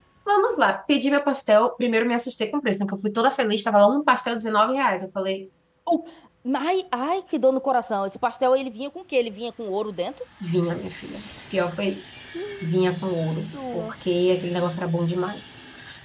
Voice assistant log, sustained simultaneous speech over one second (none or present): none